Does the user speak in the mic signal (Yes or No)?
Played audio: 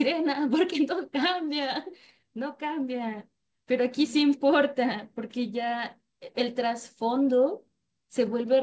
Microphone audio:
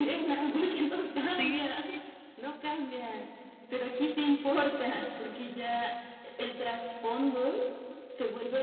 Yes